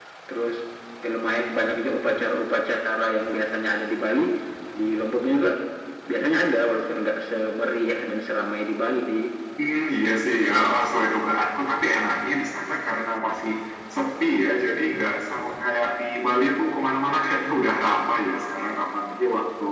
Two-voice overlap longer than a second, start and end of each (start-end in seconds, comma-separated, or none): none